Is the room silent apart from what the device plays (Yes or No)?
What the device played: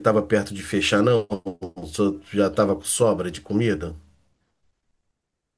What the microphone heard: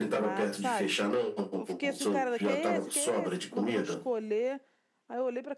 No